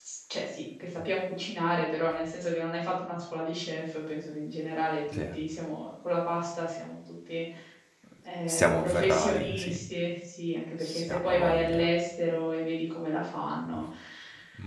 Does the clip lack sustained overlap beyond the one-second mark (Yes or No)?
No